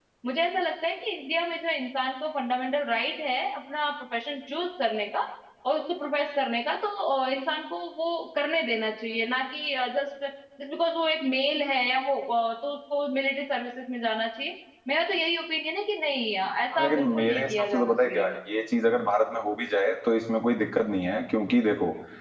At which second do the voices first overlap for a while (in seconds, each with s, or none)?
16.7 s